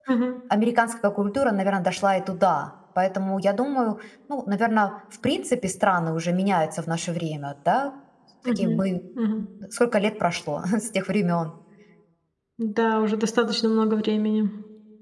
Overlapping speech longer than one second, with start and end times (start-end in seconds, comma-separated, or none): none